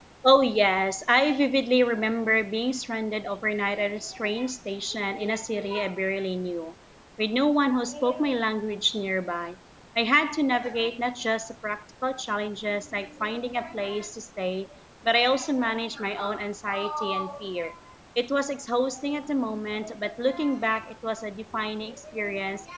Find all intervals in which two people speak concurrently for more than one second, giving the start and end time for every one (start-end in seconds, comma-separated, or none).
none